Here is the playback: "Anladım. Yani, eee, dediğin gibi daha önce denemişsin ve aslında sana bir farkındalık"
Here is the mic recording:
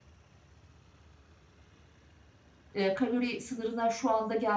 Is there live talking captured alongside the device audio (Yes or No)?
Yes